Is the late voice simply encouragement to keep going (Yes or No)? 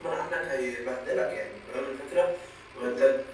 Yes